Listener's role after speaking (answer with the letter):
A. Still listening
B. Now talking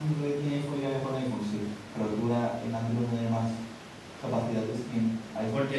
B